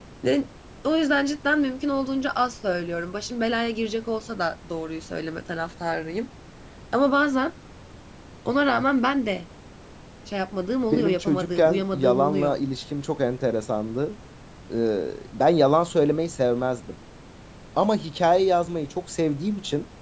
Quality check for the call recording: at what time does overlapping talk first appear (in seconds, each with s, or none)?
10.9 s